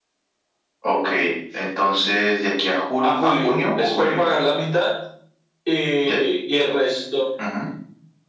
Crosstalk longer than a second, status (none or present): present